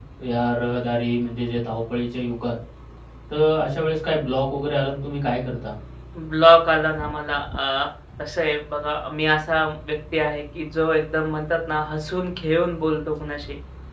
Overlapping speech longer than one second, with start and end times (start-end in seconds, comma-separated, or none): none